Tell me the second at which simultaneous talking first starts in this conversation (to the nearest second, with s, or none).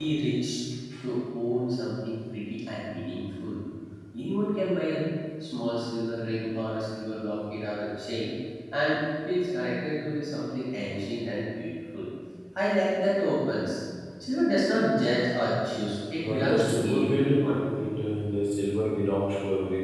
16 s